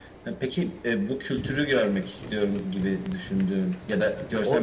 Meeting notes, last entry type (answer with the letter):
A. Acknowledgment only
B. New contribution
B